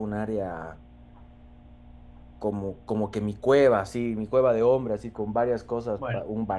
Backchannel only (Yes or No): Yes